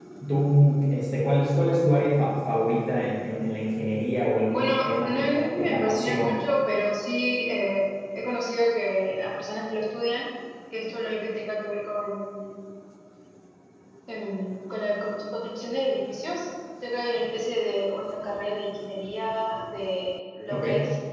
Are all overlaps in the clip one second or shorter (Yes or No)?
No